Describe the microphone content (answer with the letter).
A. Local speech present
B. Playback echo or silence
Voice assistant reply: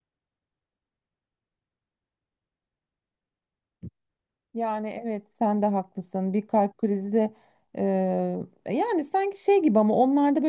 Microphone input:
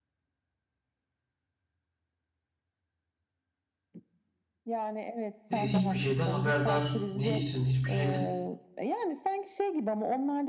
A